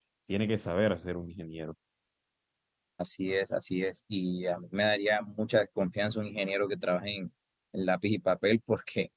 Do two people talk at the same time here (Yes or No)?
No